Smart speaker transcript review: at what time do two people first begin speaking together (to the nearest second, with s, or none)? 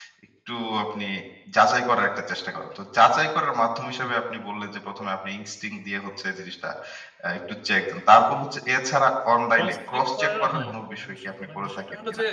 10 s